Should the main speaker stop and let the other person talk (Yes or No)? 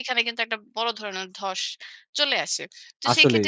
No